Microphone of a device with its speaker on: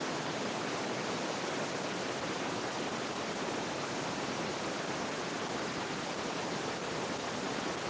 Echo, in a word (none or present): none